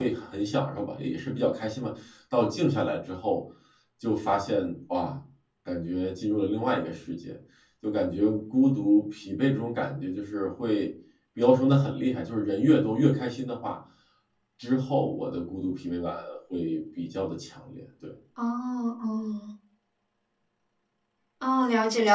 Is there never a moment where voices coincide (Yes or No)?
Yes